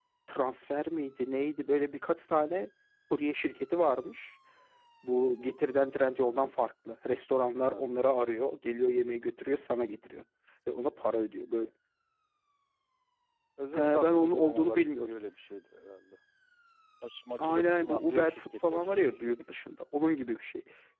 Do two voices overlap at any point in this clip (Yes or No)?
Yes